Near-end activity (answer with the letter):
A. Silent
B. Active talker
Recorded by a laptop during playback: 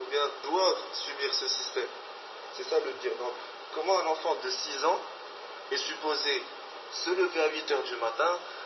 A